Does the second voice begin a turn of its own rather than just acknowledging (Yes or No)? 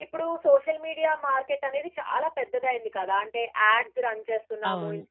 No